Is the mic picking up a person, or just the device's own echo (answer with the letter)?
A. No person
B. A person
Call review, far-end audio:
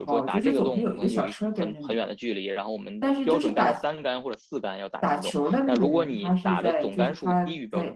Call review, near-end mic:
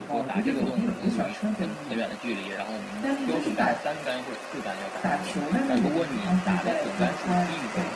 A